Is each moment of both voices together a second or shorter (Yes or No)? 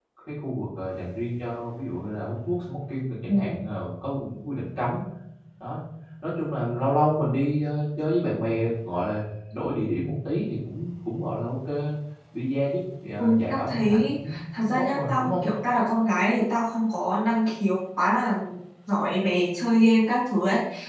No